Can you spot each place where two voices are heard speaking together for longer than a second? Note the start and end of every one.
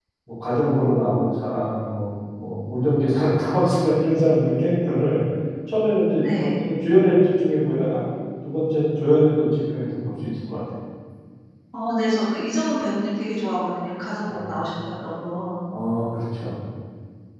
none

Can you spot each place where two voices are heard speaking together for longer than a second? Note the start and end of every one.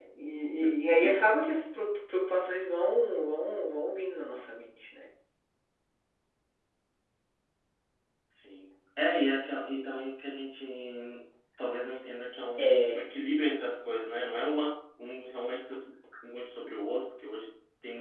none

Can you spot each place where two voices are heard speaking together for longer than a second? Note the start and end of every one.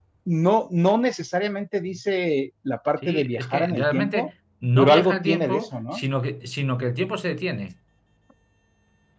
3.0-4.3, 4.8-6.0

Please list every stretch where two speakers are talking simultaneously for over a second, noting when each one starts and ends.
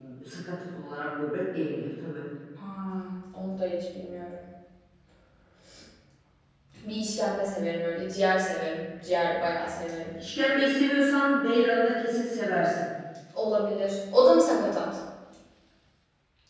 none

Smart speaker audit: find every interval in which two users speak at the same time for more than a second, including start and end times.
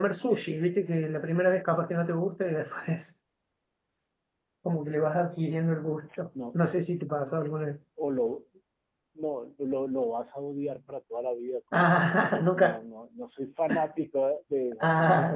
none

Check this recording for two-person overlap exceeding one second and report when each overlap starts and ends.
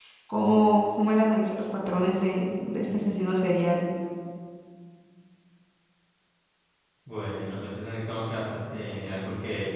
none

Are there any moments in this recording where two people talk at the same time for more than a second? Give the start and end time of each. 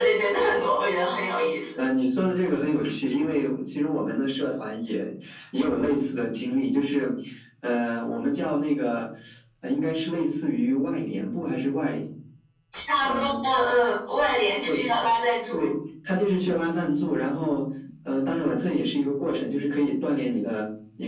none

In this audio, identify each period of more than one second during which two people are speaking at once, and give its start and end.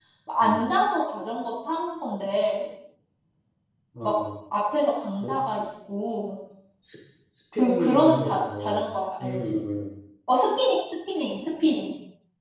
7.6-8.9

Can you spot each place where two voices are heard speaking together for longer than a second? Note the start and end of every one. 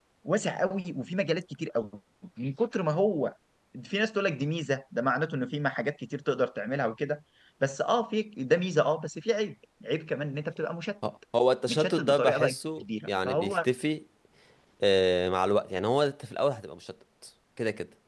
11.7-13.6

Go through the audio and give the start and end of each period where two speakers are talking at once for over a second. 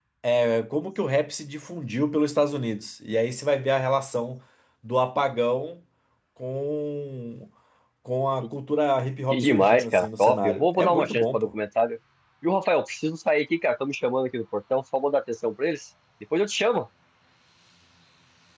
9.3-11.5

